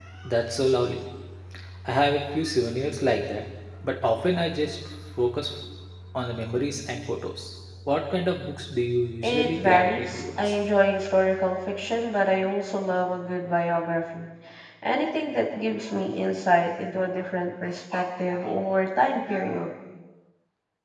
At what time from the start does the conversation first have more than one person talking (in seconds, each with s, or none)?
9.2 s